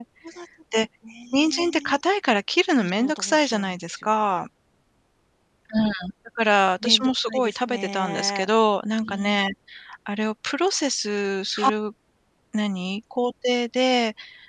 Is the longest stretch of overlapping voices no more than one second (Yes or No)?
No